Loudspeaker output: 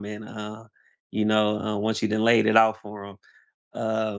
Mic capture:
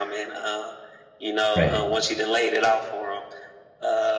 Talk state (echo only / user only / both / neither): both